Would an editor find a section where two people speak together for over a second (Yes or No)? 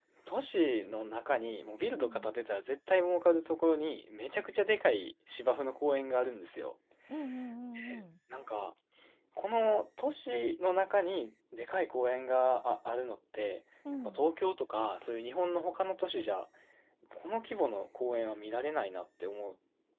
No